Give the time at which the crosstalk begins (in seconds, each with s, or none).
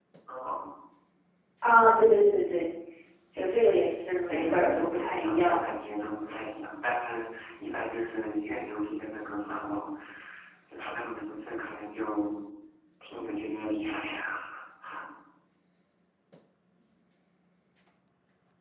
4.3 s